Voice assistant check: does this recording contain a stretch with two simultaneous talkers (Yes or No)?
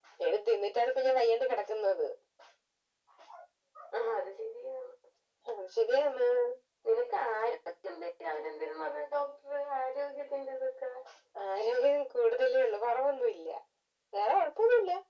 No